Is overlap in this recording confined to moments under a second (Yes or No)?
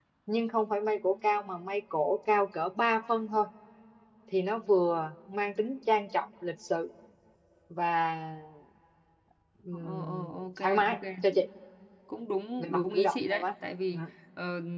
No